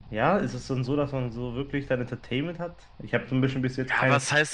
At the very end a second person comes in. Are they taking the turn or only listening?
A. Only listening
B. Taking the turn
B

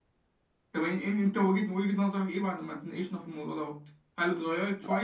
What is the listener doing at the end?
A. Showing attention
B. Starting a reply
A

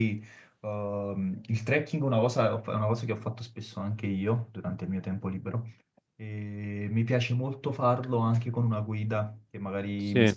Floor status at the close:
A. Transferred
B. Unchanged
B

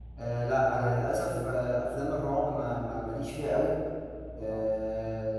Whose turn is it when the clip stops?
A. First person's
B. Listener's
A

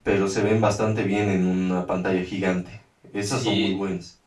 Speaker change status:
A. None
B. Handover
B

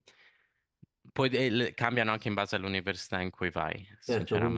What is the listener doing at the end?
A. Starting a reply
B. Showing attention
A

